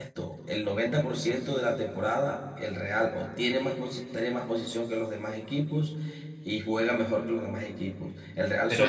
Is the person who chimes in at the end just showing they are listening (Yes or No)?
No